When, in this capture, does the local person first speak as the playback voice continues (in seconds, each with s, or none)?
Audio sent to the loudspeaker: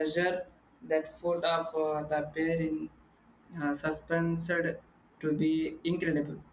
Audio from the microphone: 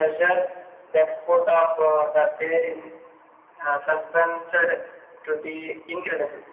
none